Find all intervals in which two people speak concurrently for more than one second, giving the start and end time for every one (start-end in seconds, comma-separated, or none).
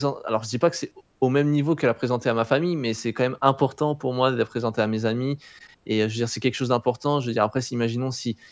none